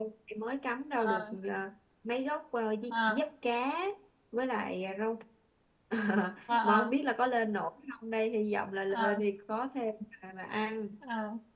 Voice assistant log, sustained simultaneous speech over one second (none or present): none